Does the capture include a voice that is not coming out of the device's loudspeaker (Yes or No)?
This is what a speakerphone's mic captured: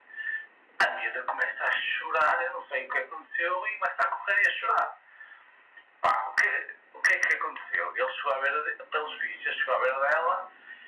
No